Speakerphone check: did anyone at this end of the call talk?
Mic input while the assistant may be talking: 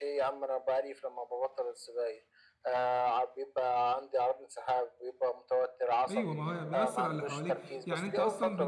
Yes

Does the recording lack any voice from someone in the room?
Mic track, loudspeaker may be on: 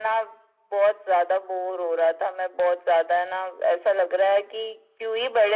Yes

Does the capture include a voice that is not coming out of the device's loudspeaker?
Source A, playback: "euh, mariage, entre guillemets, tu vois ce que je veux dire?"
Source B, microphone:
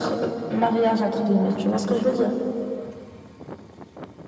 No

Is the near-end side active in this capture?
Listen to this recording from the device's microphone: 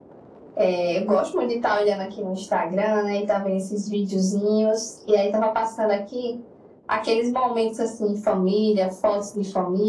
No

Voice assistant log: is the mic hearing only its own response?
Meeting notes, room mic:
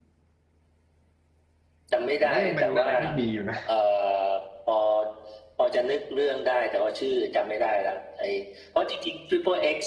No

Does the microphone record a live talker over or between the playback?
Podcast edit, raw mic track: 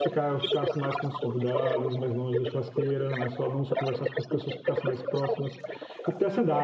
Yes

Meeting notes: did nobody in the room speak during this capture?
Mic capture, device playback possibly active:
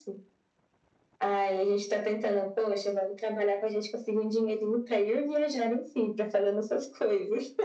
Yes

